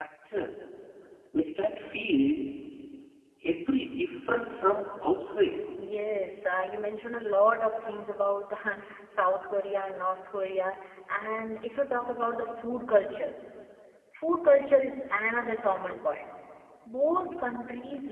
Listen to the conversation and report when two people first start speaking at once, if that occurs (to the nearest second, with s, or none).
none